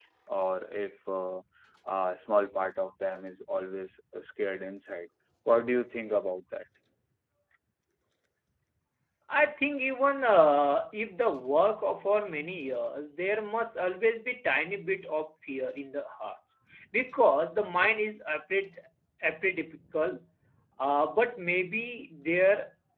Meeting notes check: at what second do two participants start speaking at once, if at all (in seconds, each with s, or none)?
none